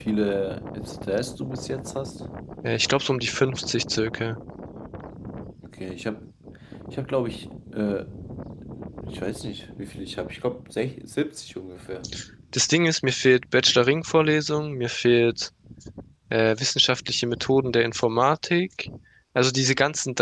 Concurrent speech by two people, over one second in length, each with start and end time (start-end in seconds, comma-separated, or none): none